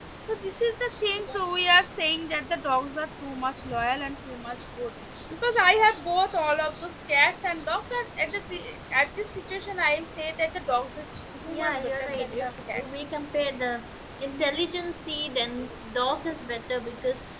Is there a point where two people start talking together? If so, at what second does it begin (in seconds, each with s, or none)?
11.5 s